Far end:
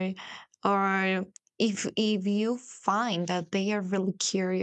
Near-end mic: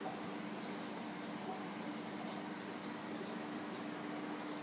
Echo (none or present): none